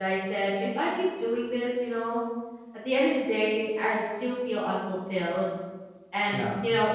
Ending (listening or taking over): listening